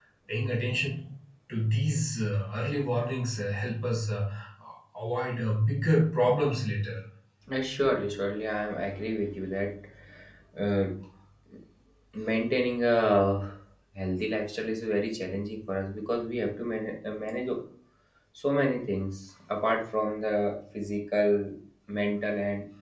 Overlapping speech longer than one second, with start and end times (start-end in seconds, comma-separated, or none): none